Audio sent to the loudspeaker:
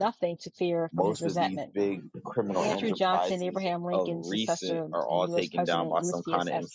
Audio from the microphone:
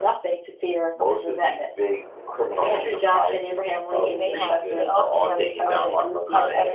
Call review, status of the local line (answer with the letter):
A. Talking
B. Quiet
A